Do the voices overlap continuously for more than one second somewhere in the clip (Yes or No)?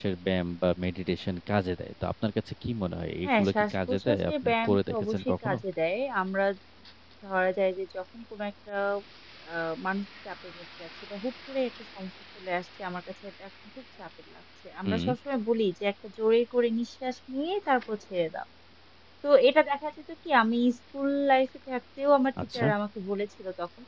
Yes